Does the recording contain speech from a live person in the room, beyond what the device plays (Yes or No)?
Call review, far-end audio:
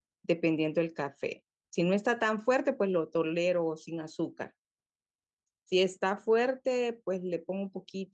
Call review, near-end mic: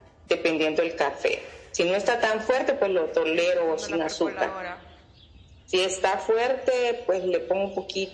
Yes